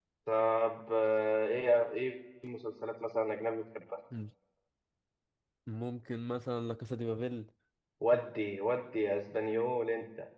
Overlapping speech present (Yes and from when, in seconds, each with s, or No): No